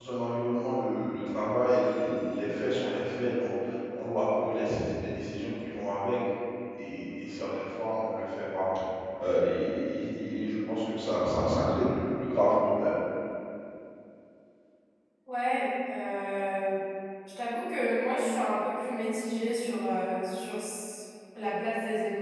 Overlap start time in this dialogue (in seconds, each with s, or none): none